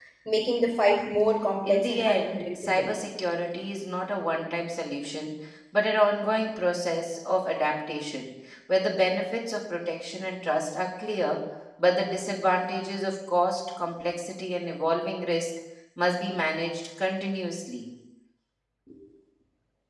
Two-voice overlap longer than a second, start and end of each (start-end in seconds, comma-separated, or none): 1.6-2.9